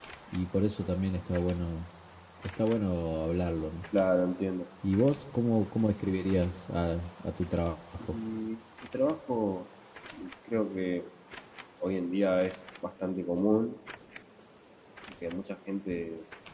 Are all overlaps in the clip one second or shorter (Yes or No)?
Yes